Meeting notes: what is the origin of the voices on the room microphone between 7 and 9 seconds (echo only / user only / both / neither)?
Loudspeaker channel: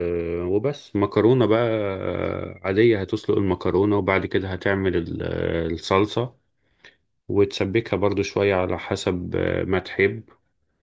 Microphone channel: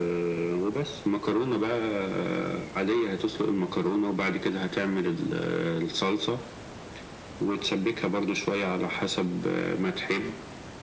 echo only